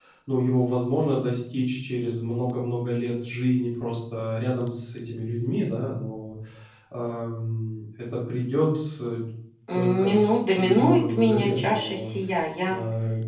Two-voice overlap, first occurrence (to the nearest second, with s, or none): 10 s